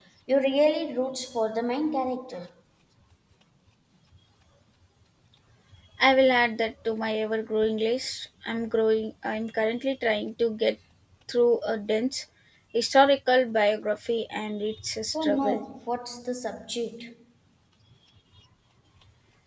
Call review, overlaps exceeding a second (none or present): none